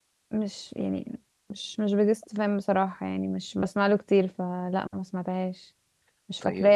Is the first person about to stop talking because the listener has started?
No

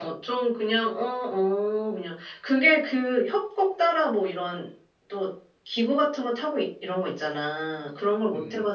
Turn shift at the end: No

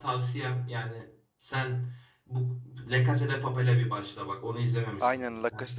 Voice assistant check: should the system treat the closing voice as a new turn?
Yes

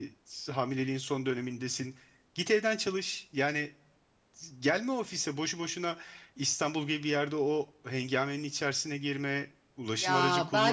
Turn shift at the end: Yes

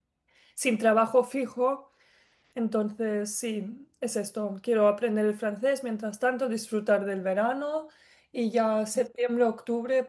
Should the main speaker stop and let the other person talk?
No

